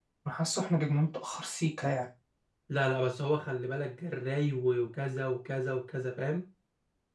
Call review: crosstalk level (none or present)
none